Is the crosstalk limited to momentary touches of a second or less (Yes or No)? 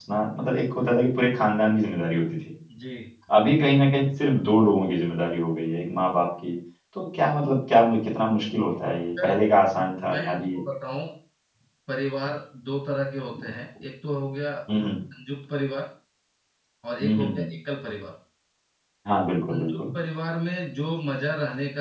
Yes